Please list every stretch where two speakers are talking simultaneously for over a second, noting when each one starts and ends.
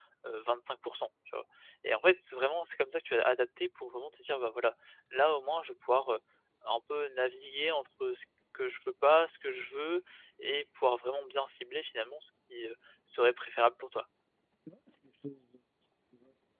none

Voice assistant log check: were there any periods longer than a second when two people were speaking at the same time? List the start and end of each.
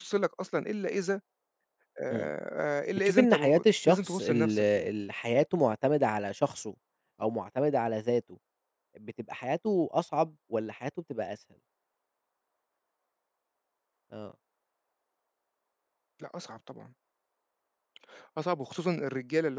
3.0-4.9

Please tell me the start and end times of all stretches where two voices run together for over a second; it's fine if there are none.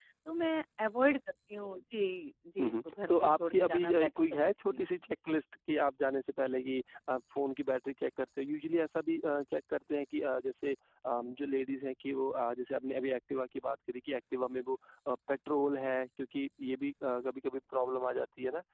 2.6-4.8

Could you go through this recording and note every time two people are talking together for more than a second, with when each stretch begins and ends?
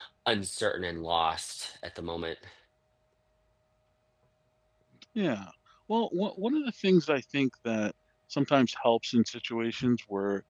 none

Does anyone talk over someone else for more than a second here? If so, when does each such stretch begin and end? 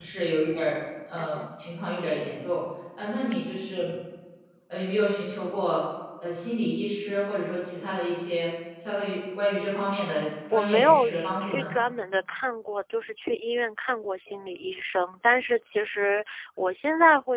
10.5-11.7

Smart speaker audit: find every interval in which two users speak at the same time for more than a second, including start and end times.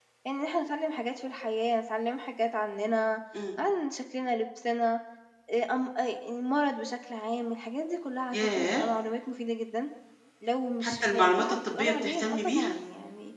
10.8-12.7

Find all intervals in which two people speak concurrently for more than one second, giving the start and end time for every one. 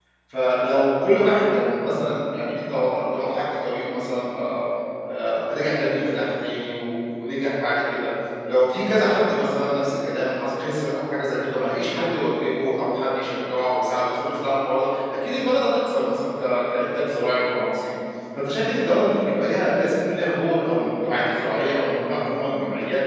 none

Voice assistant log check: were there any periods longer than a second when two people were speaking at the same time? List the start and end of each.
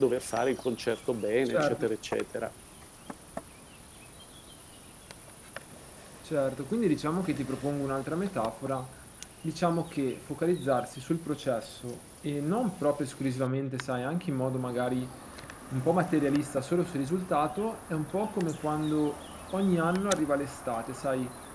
none

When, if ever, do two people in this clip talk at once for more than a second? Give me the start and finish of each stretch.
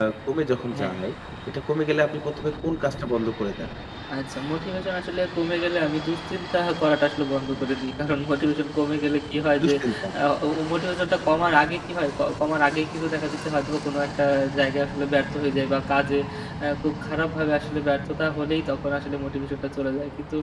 none

